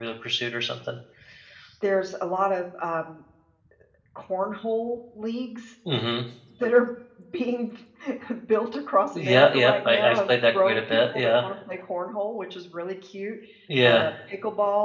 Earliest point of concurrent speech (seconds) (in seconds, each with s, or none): 9.1 s